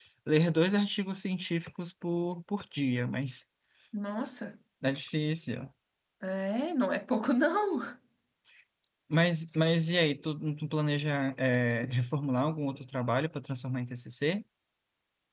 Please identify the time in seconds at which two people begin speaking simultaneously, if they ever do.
none

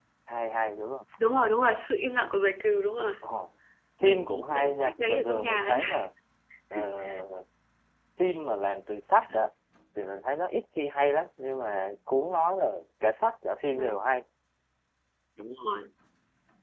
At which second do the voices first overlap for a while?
4 s

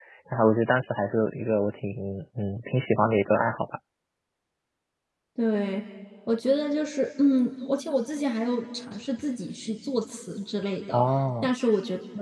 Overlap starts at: none

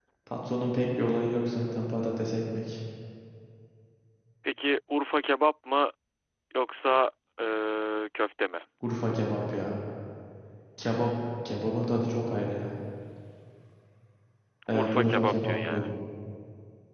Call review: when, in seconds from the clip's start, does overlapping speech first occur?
15 s

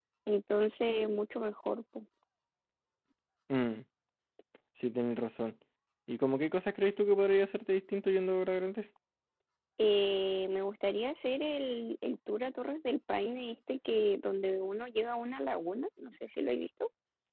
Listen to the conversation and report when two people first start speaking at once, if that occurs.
none

